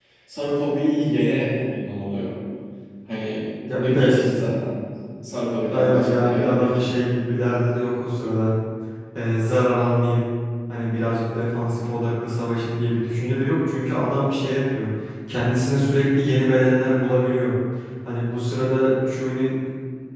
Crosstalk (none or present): present